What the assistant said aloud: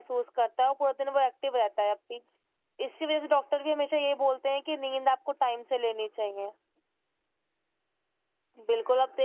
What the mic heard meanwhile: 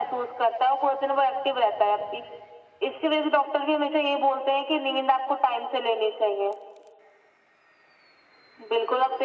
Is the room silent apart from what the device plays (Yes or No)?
Yes